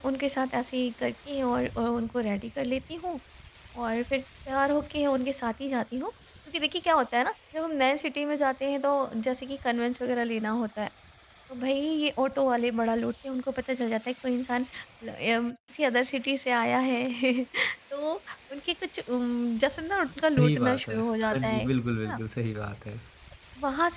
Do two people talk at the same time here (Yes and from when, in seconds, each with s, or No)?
Yes, from 20.4 s